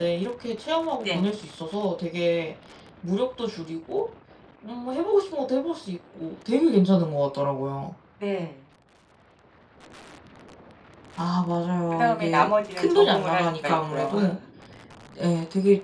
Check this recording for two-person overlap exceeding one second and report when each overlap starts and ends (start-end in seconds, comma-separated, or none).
11.9-14.1